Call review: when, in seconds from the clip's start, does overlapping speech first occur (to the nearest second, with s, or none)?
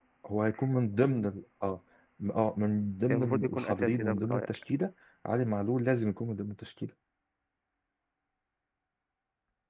3 s